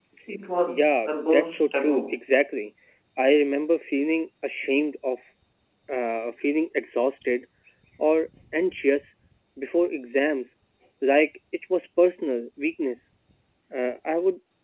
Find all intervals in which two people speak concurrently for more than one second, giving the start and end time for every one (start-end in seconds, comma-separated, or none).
0.7-2.1